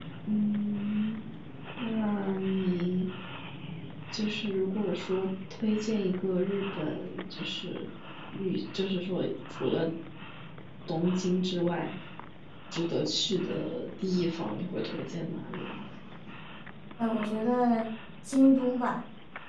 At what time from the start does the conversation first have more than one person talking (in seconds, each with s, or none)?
none